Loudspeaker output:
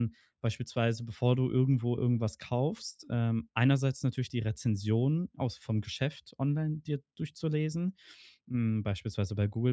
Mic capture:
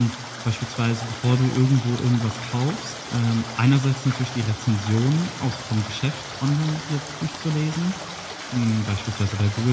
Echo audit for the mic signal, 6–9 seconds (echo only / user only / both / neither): echo only